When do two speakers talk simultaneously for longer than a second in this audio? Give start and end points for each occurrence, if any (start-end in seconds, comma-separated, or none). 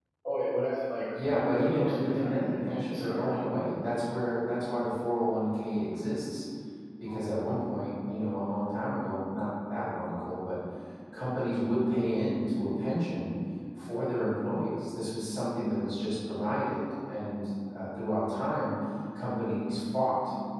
1.1-3.4